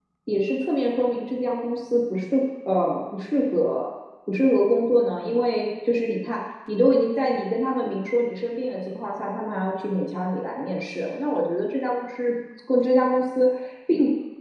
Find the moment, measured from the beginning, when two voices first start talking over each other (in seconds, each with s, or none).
none